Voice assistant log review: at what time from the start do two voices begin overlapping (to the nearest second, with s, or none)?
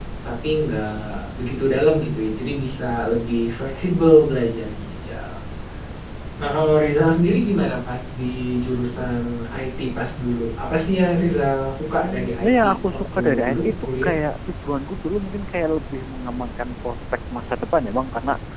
12 s